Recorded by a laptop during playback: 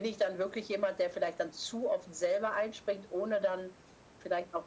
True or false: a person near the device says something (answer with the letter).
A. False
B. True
A